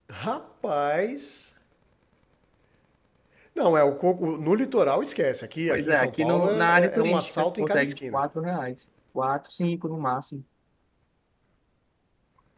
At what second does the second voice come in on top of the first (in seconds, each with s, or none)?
5.7 s